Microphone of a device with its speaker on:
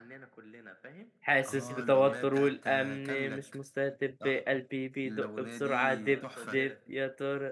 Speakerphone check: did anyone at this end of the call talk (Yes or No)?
Yes